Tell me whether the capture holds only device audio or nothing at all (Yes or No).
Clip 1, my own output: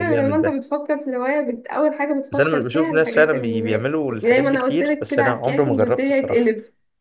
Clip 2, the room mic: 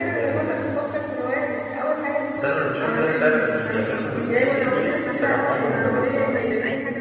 No